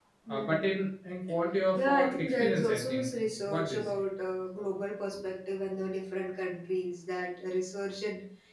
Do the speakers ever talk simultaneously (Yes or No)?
Yes